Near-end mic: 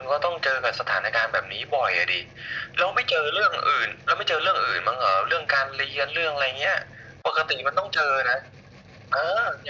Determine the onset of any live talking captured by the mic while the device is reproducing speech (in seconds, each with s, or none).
none